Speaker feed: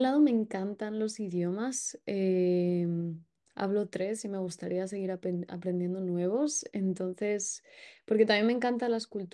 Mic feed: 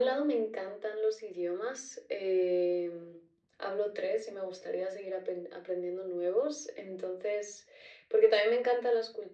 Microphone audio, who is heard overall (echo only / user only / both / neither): echo only